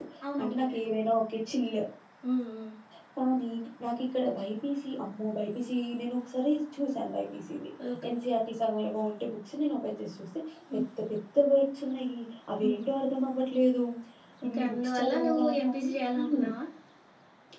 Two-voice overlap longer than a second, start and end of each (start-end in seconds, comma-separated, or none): 14.5-16.5